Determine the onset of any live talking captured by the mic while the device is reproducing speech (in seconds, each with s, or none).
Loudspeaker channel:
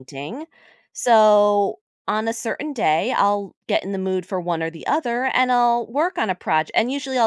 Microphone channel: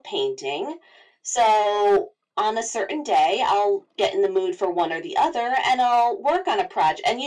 none